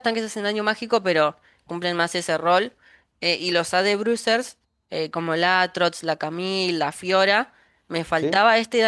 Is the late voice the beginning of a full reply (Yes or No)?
No